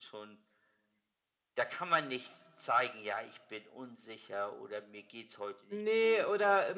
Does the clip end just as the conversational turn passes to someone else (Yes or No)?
Yes